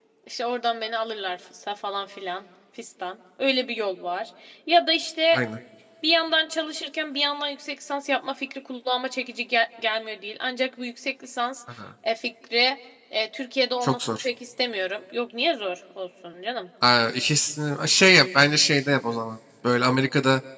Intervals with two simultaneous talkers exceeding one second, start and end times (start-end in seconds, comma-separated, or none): none